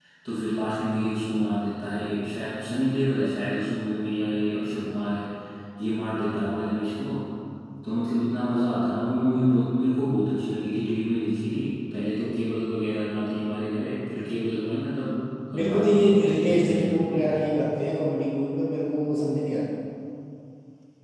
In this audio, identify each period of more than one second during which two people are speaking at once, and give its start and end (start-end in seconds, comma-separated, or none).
15.5-17.2